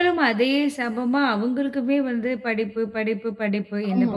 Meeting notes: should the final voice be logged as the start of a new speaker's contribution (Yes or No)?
No